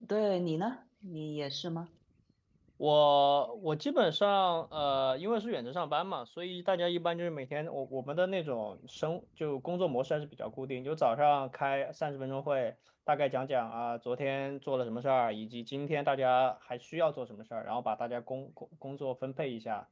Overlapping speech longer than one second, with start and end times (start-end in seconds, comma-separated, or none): none